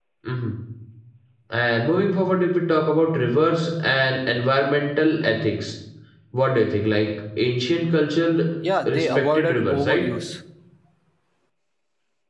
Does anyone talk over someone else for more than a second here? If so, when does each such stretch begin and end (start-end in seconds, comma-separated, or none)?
8.9-10.1